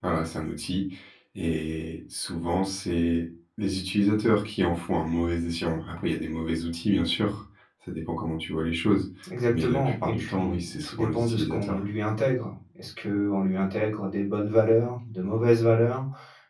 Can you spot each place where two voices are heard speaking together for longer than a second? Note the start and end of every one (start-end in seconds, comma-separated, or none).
9.5-11.8